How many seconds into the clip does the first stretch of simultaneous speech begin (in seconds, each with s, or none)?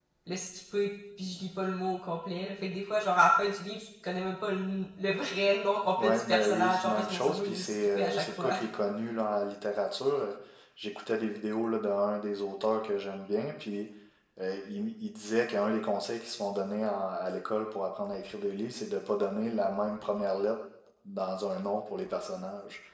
6.0 s